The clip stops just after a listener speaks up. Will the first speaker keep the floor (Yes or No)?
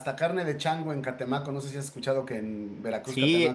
No